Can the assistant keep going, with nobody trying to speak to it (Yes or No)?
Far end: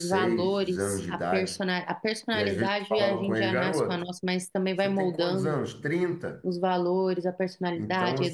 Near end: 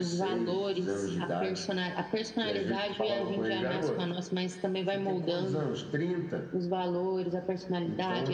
Yes